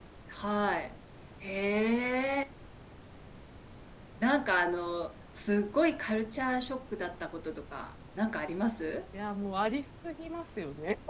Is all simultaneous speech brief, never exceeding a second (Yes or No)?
Yes